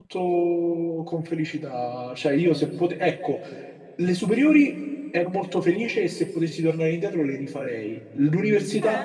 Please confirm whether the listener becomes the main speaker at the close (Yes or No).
Yes